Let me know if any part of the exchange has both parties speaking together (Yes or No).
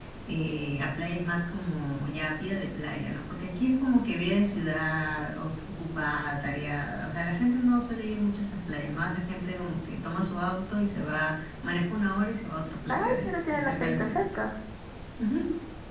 Yes